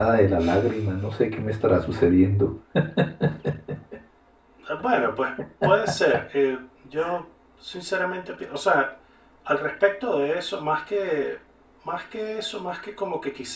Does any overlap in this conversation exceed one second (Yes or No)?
No